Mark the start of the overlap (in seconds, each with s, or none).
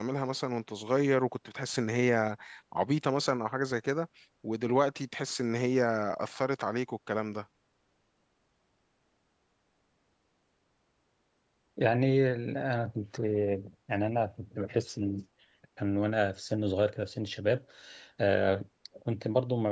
none